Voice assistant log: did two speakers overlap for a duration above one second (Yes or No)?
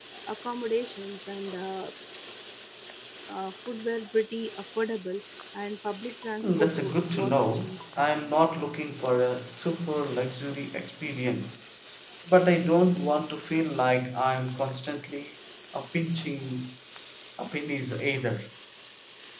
Yes